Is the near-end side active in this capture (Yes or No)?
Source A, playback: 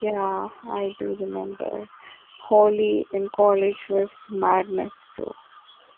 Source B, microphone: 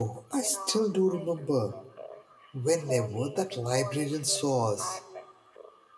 Yes